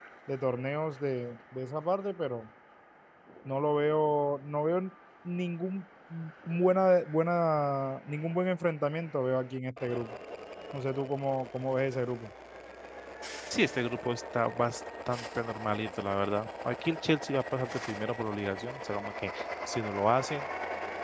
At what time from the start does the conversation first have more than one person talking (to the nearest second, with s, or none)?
none